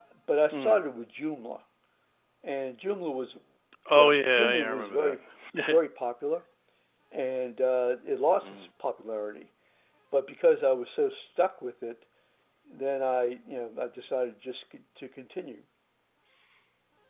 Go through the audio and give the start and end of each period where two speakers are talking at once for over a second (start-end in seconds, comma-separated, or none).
3.9-5.2